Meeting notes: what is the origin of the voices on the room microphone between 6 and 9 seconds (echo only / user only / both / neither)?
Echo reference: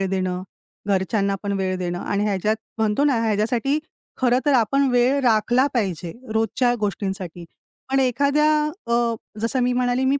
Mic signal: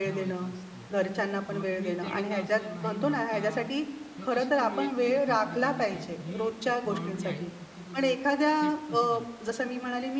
both